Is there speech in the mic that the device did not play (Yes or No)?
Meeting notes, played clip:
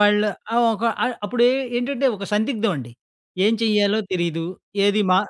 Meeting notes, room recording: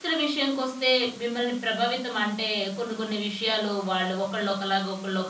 Yes